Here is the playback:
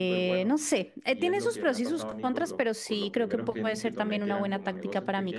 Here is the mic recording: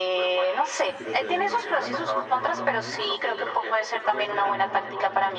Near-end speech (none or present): present